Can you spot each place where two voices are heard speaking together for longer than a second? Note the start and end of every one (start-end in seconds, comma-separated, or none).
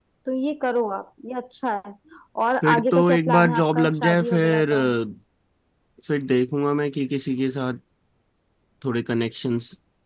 2.6-4.7